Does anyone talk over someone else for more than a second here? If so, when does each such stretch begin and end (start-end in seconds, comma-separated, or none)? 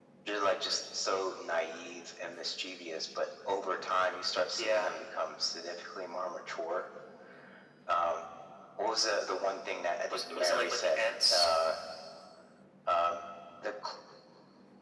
10.1-11.5